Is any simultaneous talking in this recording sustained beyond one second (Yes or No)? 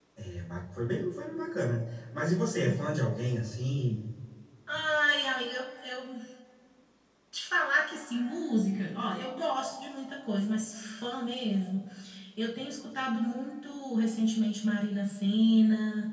No